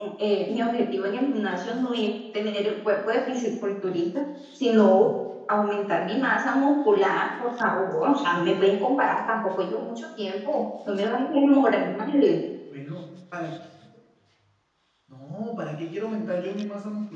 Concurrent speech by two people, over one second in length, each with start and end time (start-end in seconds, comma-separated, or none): none